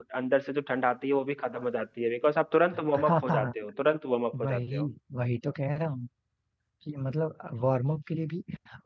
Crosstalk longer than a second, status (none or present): none